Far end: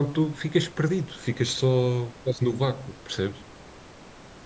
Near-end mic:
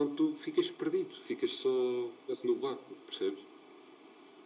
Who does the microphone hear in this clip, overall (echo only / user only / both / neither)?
echo only